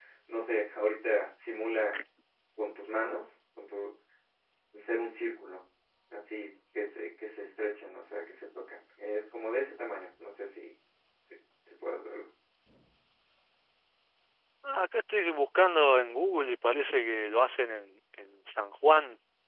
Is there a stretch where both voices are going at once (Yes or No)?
No